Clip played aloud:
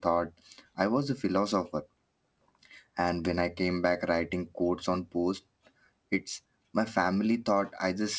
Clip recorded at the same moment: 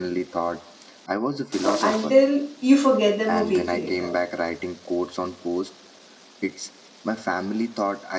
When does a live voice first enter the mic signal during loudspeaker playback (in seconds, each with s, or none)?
1.6 s